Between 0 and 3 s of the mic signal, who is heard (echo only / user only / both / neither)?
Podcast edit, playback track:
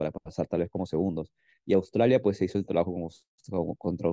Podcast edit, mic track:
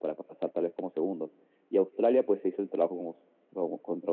echo only